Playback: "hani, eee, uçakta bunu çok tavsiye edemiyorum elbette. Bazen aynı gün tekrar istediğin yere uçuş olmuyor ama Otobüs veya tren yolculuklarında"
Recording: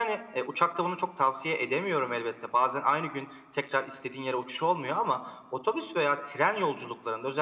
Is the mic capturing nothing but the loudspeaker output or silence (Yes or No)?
Yes